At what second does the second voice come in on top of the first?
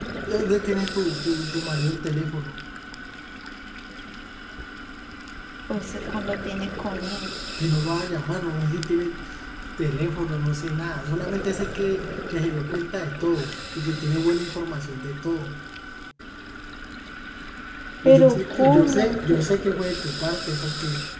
18.0 s

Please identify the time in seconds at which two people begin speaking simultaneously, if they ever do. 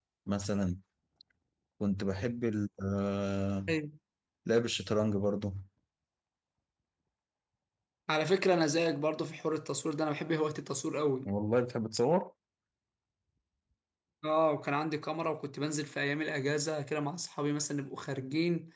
none

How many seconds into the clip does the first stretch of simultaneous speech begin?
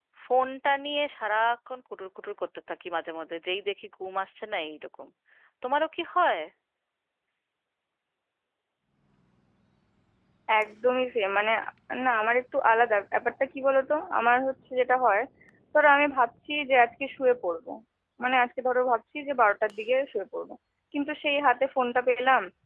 none

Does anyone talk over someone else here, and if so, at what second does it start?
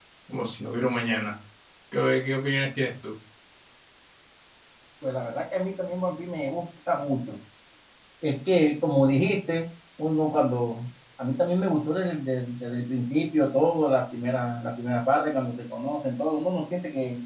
none

